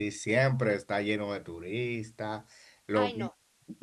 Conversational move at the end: listening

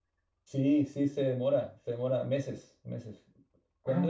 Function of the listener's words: taking over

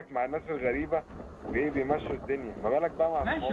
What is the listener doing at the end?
taking over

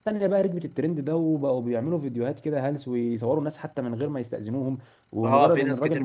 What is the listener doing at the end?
taking over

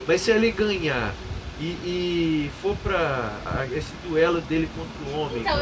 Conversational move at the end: taking over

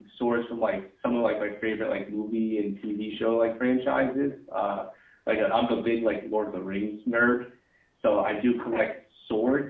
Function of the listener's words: listening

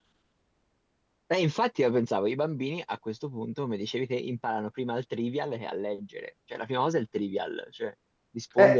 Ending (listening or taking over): listening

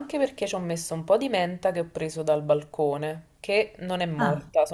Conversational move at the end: listening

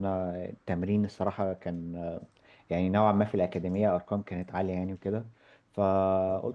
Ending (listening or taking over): listening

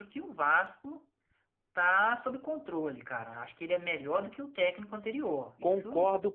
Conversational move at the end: taking over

